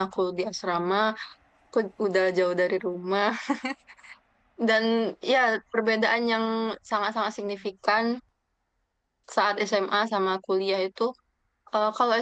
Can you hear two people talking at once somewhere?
No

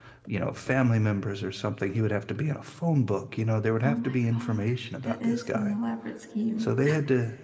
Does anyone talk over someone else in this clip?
Yes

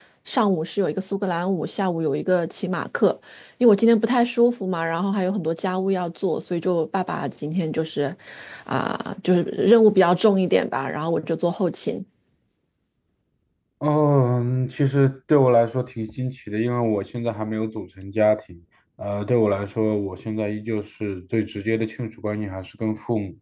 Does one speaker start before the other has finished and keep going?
No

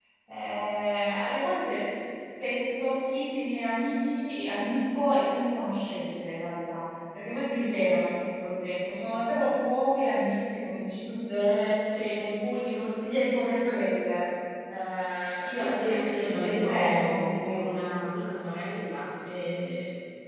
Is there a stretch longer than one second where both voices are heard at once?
Yes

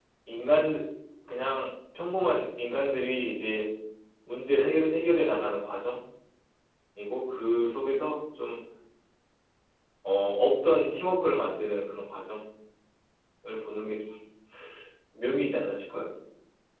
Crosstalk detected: No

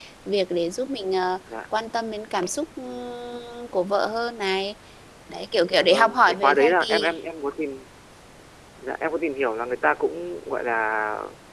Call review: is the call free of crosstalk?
No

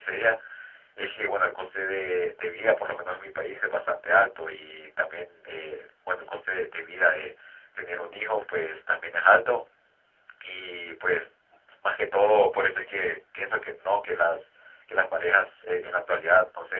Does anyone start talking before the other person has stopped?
No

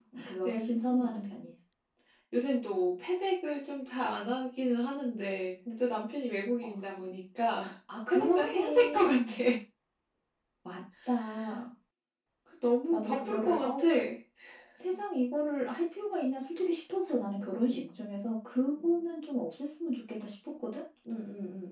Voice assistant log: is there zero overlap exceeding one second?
No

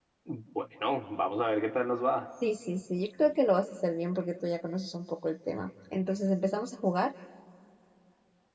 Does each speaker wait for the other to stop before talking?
Yes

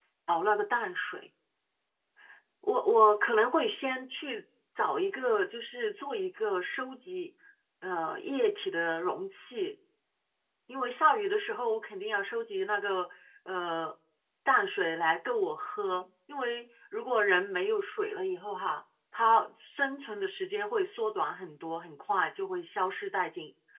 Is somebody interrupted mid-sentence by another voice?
No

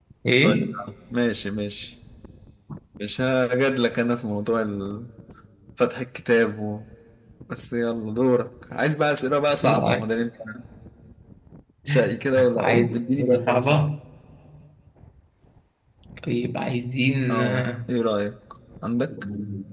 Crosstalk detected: Yes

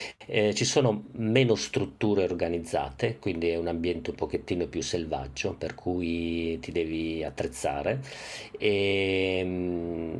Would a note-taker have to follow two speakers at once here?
No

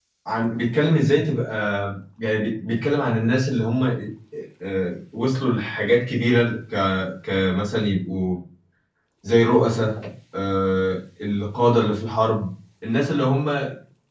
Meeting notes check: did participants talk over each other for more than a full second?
No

